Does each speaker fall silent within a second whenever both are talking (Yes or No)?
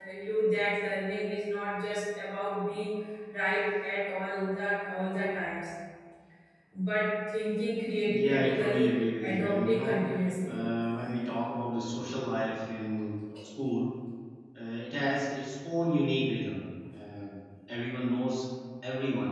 No